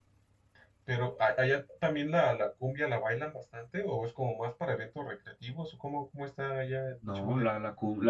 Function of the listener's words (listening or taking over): taking over